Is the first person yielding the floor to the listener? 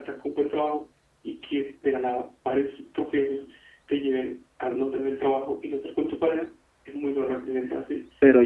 Yes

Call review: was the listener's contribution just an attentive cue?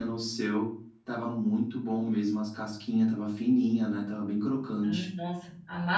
No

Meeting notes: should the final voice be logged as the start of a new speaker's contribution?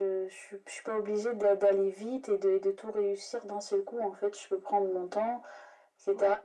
No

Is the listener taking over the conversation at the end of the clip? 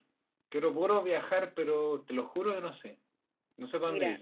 Yes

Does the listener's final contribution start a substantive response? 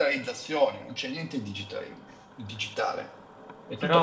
Yes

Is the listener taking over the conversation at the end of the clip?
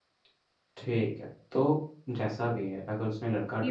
Yes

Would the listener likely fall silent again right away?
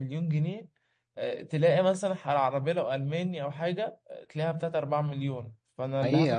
No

